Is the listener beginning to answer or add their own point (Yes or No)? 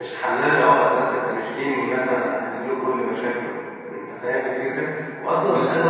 No